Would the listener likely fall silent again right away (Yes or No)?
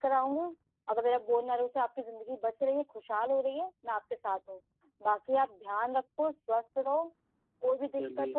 Yes